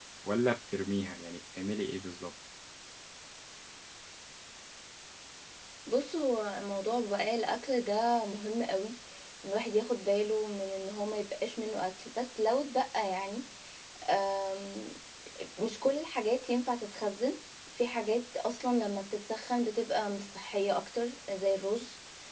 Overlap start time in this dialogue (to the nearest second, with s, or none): none